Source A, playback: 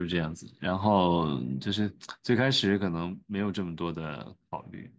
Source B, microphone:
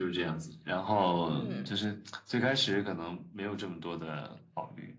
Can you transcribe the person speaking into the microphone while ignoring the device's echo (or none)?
嗯，